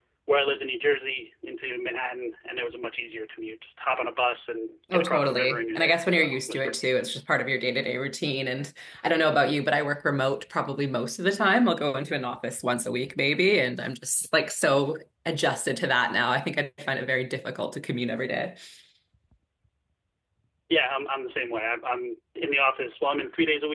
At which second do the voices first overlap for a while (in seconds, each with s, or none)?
4.9 s